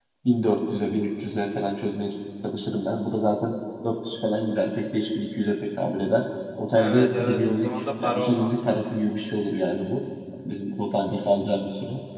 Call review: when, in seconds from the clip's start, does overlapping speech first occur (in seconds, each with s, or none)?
6.7 s